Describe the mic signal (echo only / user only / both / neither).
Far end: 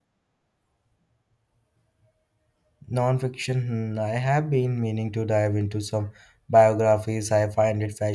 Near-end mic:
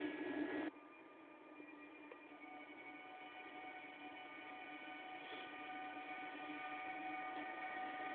neither